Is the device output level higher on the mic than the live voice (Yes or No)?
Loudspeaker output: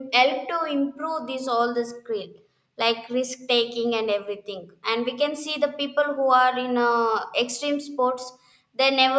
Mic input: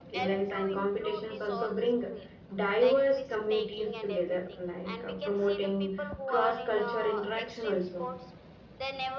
No